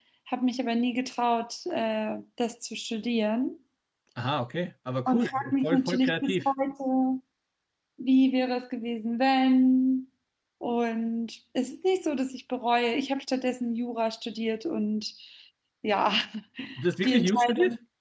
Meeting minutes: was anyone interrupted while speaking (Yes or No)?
Yes